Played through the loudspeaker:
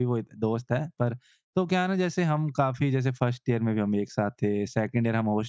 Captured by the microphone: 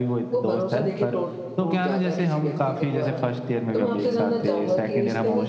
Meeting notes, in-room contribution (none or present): present